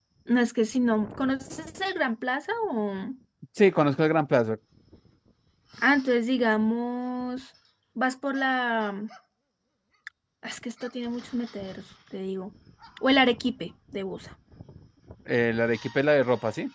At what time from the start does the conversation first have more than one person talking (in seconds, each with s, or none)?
none